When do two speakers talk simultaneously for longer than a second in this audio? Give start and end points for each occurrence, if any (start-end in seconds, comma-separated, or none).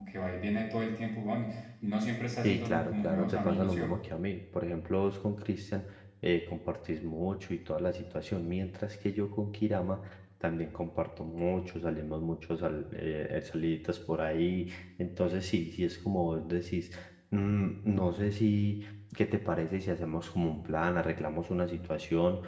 2.4-3.8